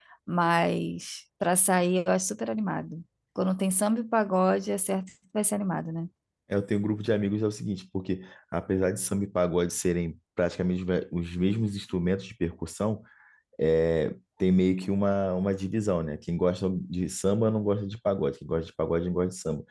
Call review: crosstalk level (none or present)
none